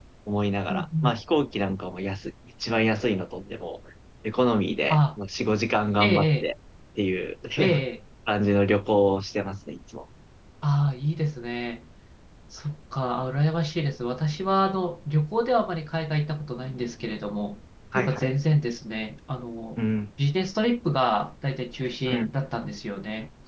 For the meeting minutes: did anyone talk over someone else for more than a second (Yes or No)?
No